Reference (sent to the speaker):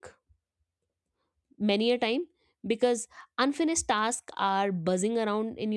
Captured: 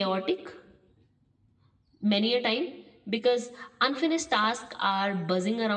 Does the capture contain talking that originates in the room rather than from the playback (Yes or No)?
No